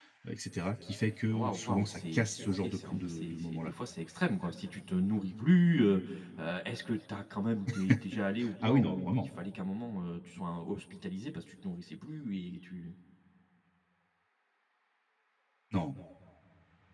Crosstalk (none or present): present